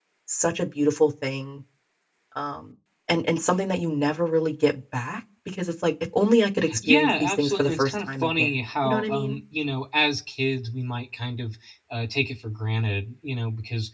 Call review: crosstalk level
present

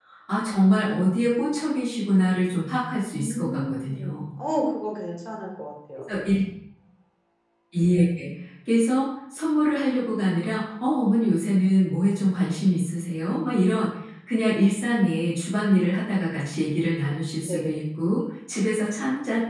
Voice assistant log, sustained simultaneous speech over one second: present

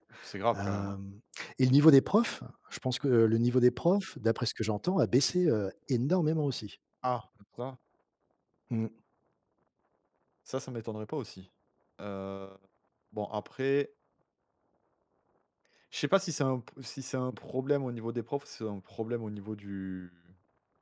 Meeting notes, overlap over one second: none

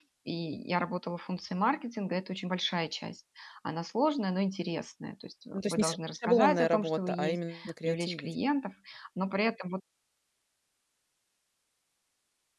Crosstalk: present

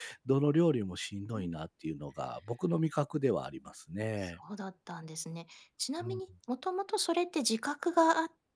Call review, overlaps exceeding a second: none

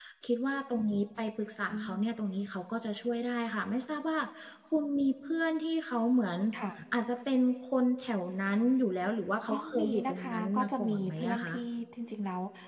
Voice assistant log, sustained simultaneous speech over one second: present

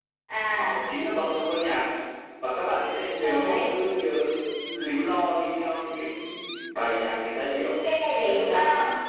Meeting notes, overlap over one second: none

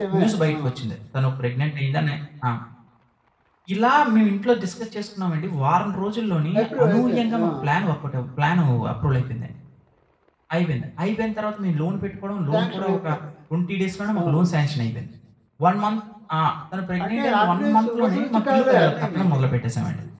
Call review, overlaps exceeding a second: present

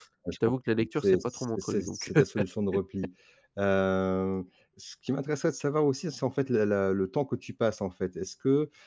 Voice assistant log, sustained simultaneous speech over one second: present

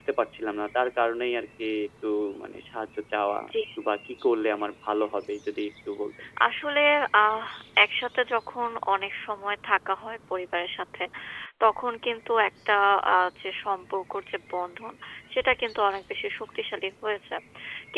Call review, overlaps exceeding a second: none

